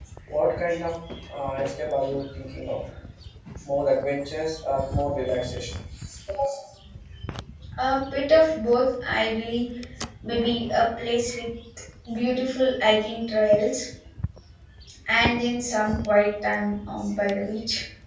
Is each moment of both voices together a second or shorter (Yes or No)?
Yes